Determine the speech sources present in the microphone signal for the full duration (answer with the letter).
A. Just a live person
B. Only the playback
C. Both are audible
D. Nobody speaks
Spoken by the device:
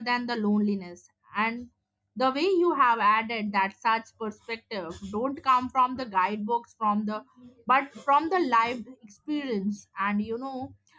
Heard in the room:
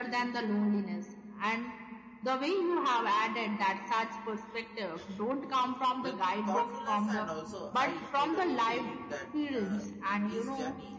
C